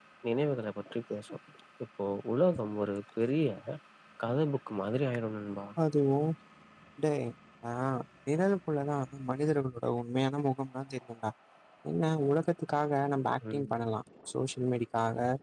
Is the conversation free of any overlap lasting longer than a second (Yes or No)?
Yes